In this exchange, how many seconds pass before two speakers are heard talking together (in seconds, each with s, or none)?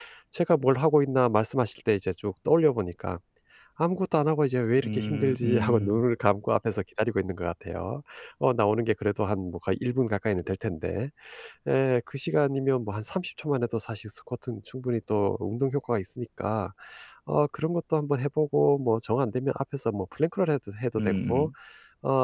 4.8 s